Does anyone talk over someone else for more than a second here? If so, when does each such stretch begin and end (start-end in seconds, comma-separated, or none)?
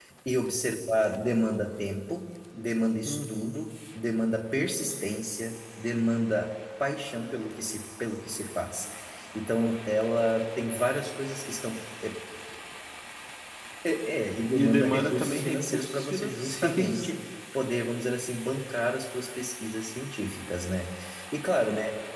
14.5-17.1